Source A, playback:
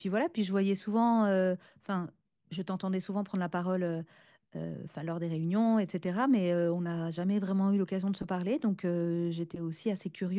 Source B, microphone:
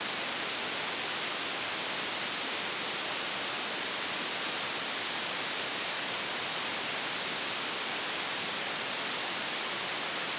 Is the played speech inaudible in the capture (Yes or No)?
Yes